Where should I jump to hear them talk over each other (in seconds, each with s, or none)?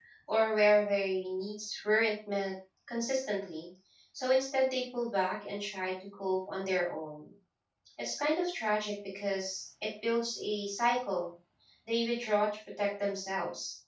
none